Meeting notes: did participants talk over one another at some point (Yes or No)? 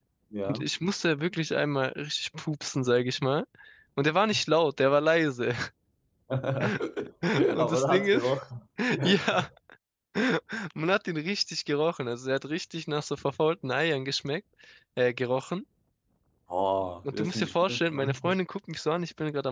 Yes